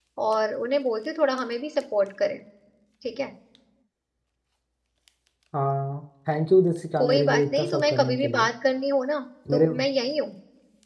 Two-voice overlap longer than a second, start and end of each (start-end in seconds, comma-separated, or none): 7.0-8.5